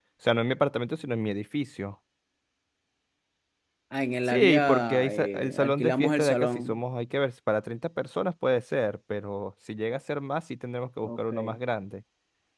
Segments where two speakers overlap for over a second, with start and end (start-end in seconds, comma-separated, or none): 4.2-6.8